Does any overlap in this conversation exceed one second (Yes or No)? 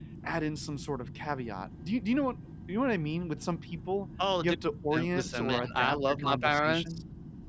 Yes